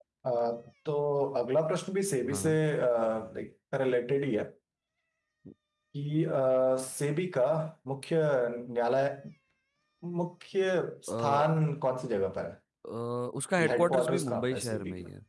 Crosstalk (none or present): present